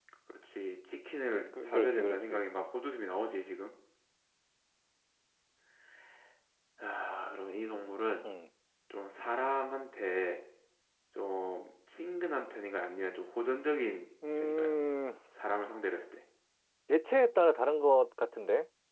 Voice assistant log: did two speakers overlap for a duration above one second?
Yes, from 1.3 s

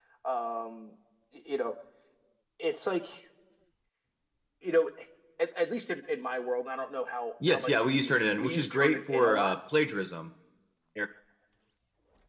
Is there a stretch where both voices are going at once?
Yes, from 7.4 s

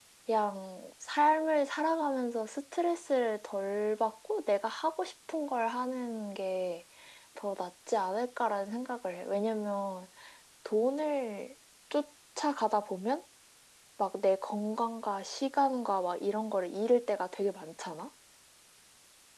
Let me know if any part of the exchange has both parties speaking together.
No

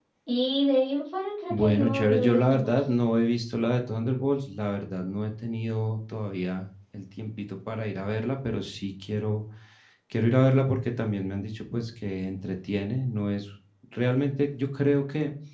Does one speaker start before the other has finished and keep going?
Yes, from 1.5 s

